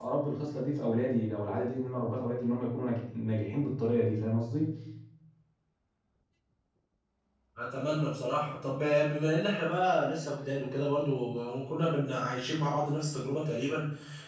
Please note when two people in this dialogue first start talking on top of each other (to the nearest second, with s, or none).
none